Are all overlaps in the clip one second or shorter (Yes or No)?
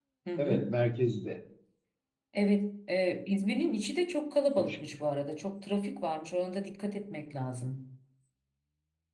Yes